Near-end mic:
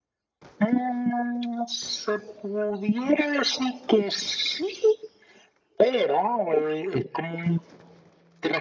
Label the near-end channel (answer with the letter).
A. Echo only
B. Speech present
A